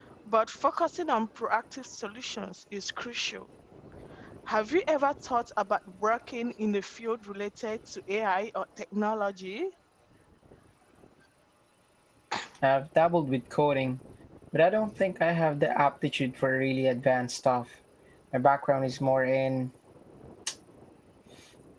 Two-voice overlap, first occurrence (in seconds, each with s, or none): none